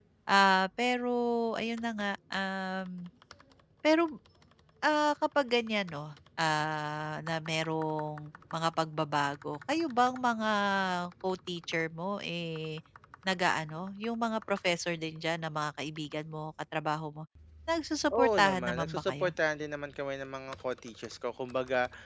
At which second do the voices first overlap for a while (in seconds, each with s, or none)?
18.1 s